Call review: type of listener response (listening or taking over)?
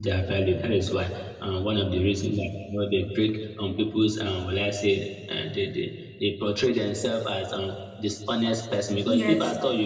listening